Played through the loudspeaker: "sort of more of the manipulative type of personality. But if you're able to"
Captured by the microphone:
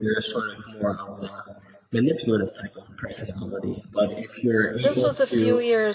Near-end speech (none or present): present